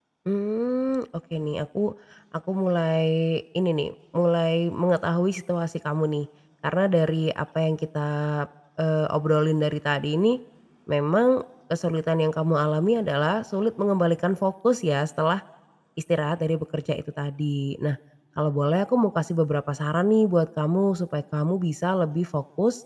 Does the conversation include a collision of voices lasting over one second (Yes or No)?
No